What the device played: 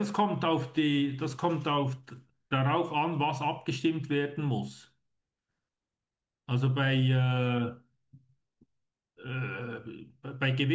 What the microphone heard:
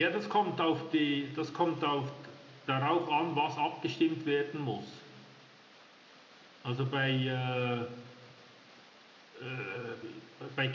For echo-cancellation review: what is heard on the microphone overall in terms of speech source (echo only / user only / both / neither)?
echo only